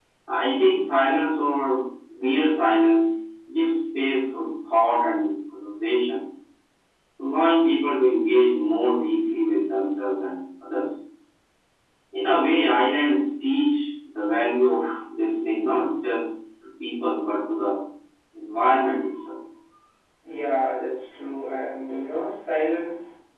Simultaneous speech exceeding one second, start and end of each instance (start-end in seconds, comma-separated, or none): none